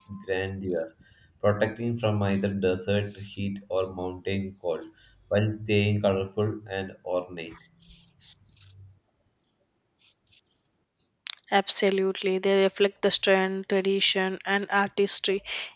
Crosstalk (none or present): none